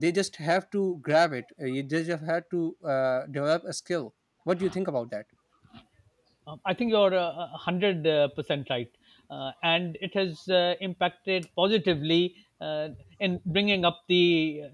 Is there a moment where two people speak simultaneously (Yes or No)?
No